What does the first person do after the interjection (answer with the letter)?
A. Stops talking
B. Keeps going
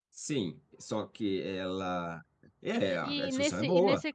A